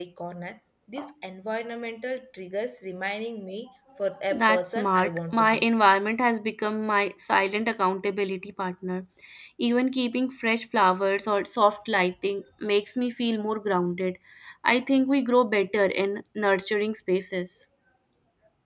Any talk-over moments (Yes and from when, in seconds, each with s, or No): Yes, from 4.3 s